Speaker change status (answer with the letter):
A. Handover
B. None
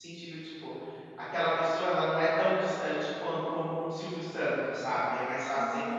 A